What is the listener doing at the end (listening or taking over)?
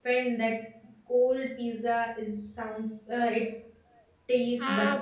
taking over